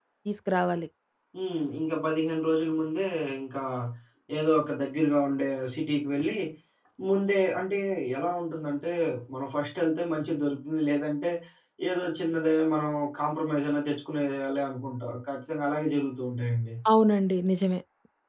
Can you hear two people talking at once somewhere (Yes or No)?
No